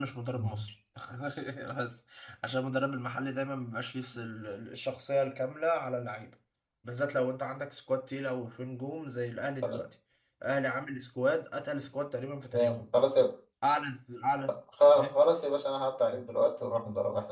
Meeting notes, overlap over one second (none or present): none